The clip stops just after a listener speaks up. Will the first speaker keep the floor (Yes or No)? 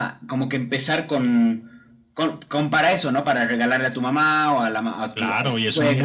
No